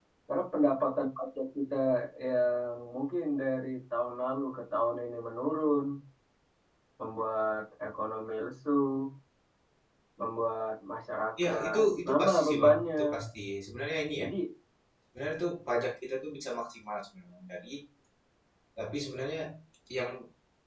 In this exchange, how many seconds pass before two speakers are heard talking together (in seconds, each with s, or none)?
11.4 s